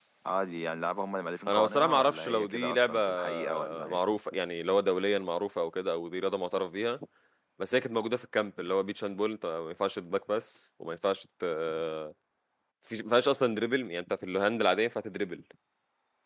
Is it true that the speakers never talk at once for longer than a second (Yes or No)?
No